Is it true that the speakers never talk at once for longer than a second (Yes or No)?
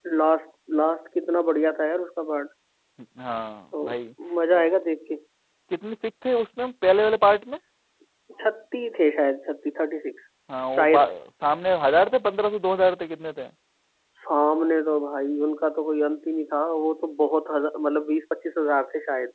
Yes